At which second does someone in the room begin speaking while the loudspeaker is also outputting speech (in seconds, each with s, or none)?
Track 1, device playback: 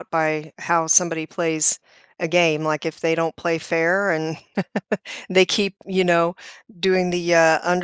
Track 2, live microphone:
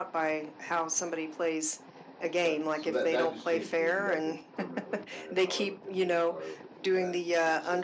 2.4 s